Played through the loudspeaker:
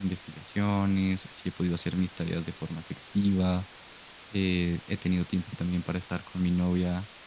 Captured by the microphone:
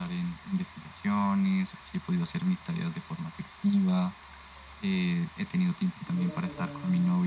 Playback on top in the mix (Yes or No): Yes